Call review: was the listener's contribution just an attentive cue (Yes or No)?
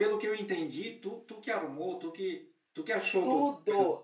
No